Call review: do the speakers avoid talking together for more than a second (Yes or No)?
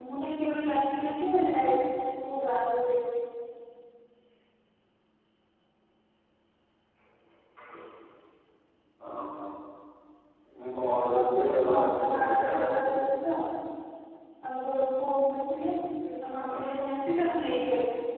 No